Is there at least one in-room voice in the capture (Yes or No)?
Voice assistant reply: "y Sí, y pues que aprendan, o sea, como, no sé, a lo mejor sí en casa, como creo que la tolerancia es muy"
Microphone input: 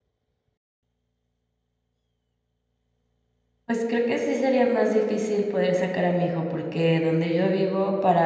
Yes